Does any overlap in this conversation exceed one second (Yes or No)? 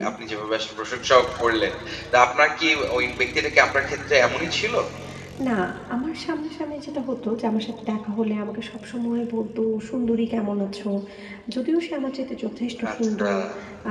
No